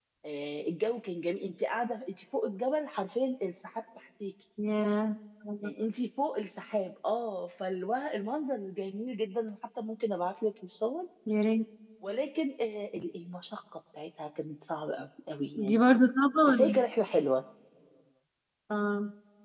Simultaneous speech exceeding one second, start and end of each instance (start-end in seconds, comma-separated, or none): none